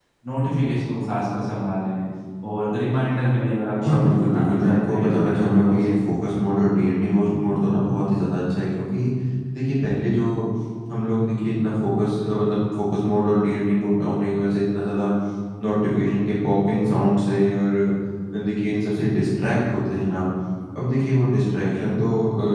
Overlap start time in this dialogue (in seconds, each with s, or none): 3.8 s